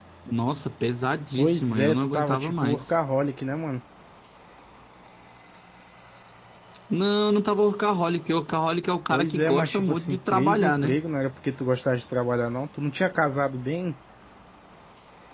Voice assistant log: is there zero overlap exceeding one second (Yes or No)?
No